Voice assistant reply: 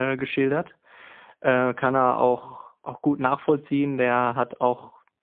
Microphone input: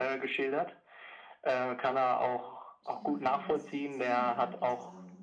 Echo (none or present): present